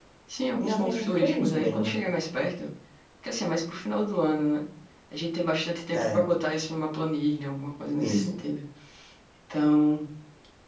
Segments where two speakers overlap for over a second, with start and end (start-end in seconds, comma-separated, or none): 0.6-1.9